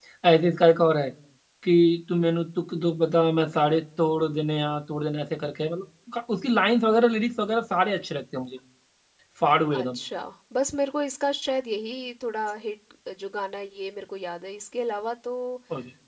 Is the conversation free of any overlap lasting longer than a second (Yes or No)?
Yes